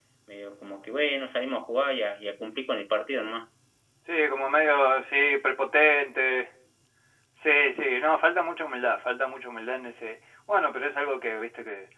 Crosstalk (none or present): none